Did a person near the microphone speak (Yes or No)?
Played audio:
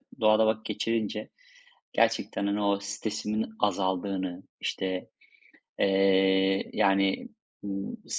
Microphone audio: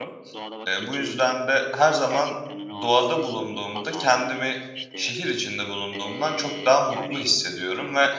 Yes